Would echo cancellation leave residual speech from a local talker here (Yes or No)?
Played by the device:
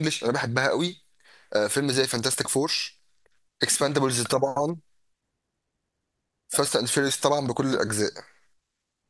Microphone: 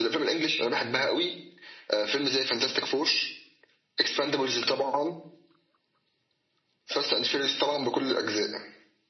No